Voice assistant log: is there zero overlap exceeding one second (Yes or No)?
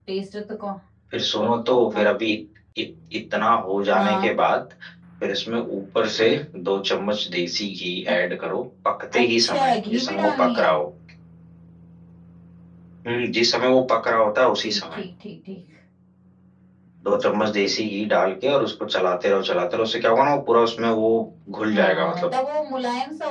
No